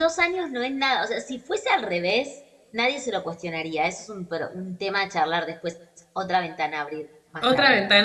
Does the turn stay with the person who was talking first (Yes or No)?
No